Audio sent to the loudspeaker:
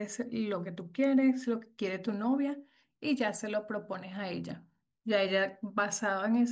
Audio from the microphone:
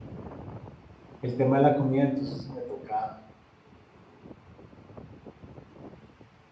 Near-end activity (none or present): present